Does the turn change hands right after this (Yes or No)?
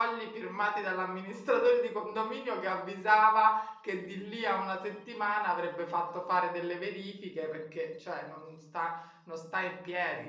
No